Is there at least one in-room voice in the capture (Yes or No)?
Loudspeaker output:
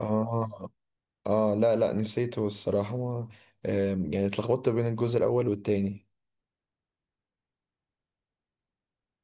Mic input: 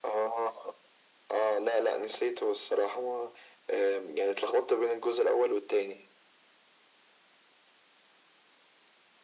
No